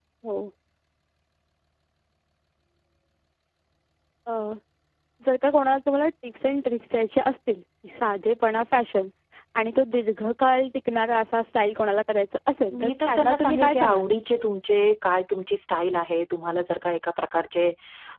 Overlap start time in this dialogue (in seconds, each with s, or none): 12.7 s